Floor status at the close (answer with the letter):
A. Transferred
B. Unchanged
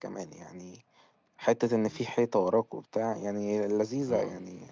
A